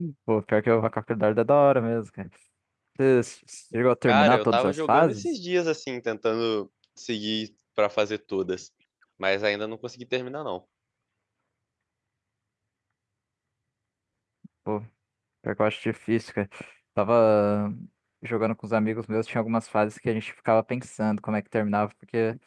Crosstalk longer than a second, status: present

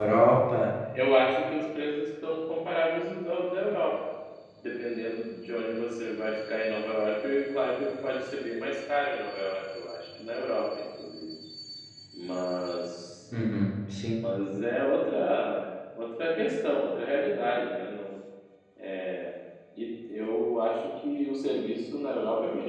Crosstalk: none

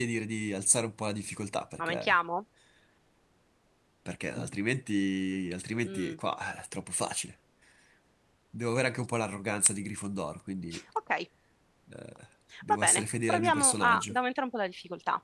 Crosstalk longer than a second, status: present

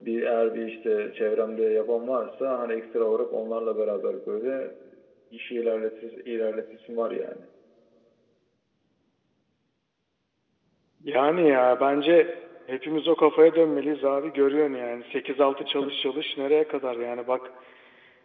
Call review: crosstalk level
none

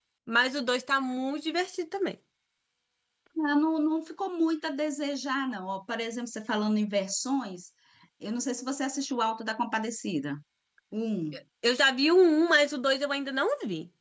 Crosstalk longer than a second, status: none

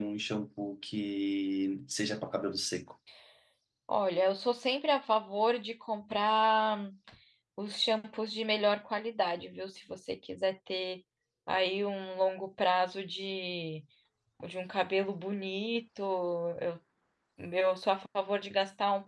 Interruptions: none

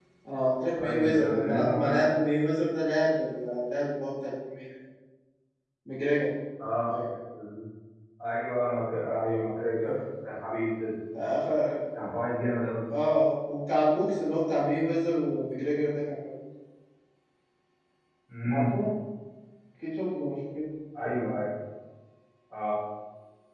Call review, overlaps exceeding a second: present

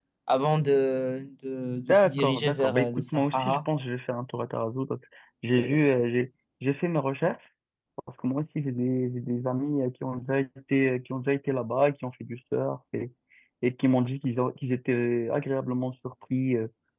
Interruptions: present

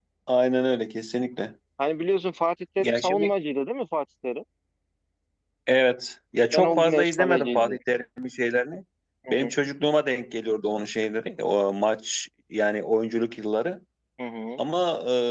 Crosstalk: present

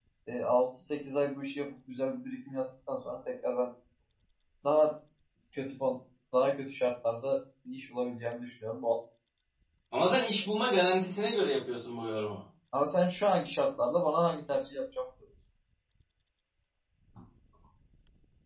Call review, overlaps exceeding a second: none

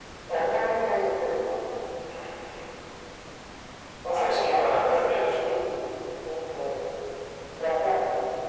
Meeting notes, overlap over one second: present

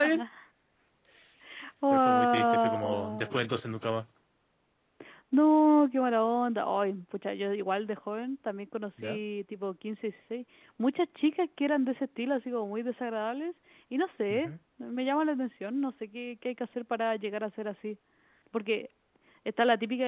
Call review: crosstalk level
present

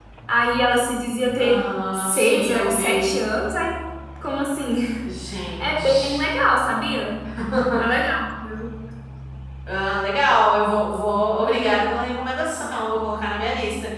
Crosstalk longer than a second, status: present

